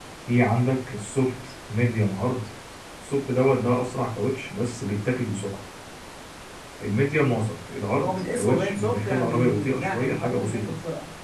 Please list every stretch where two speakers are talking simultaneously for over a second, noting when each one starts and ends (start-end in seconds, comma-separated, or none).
8.0-10.7